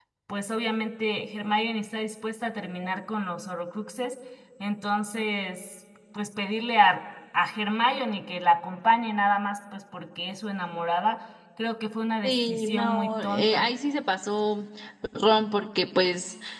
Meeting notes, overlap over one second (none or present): present